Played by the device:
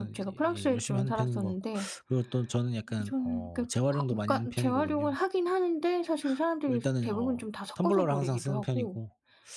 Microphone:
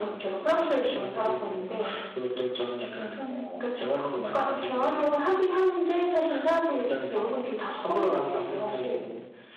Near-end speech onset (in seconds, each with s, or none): none